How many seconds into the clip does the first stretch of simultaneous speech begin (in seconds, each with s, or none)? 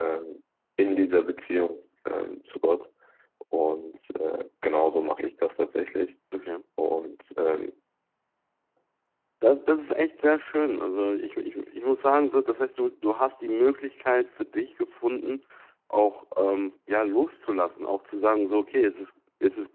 none